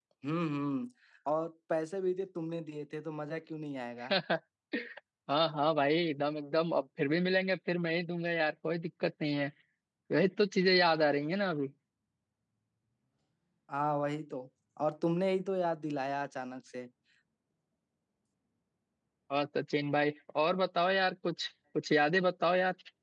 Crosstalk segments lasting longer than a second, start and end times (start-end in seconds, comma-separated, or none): none